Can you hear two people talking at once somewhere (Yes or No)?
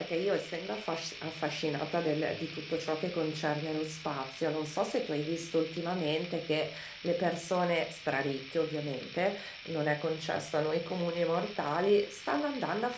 No